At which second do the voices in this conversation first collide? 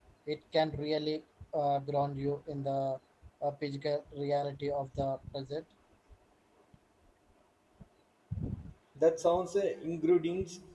none

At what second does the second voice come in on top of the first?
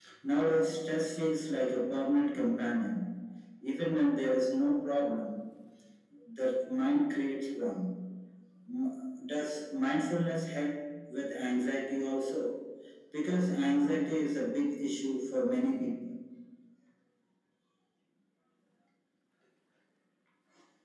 none

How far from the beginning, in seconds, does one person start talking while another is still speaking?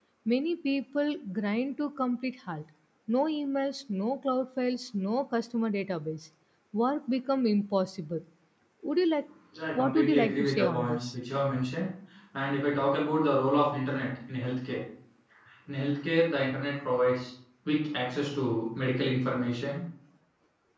9.8 s

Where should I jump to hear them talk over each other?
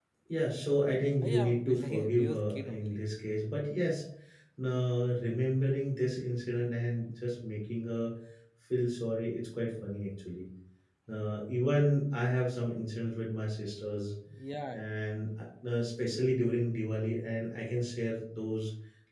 1.2 s

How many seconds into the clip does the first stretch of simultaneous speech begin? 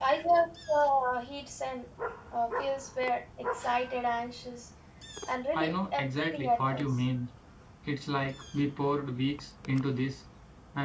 5.5 s

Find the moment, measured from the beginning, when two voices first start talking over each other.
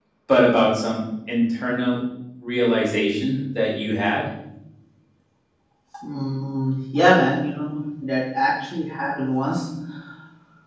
none

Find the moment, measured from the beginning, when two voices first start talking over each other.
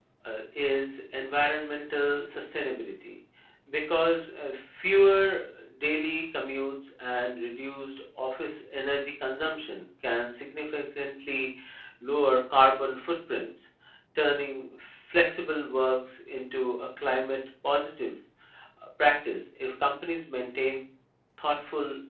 none

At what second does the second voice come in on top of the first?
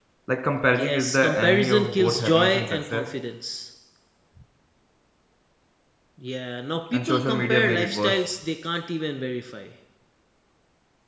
0.7 s

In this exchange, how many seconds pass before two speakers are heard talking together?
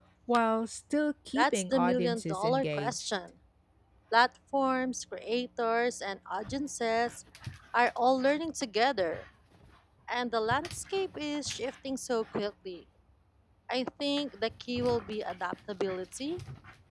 1.4 s

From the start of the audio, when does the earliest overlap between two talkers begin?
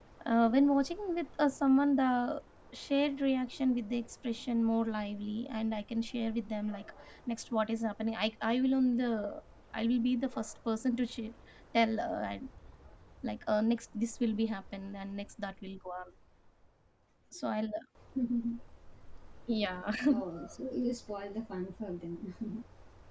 none

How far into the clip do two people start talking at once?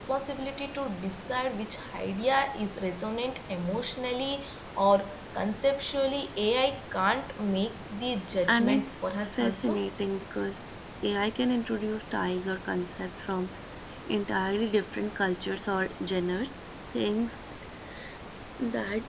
8.4 s

